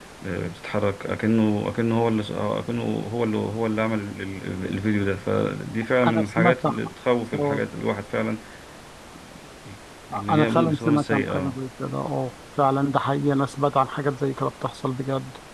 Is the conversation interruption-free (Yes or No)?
No